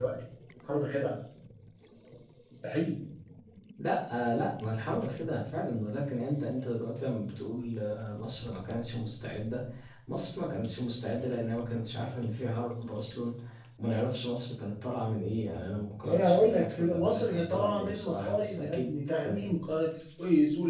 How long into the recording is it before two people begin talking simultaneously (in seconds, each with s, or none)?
16.0 s